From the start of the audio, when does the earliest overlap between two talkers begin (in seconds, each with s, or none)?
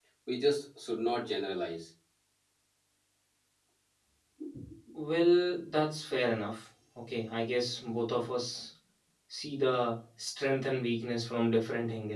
none